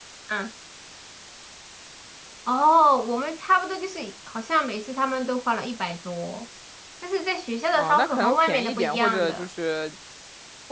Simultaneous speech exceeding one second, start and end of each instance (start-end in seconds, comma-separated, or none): 7.7-9.5